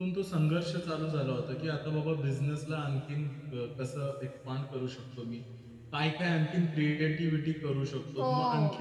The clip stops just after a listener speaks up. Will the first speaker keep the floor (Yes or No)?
Yes